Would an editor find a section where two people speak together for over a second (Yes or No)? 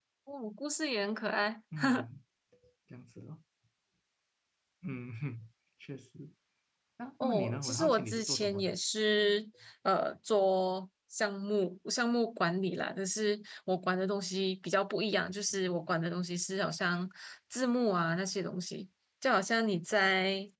Yes